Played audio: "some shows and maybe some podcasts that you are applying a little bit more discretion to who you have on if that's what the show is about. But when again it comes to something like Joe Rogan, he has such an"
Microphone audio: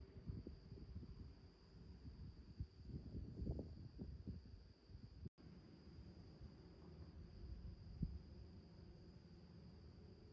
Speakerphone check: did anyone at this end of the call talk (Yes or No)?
No